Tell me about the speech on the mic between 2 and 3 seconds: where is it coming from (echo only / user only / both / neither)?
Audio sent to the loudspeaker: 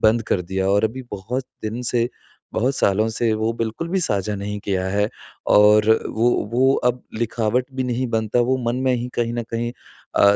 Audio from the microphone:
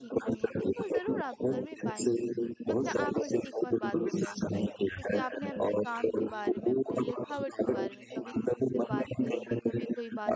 both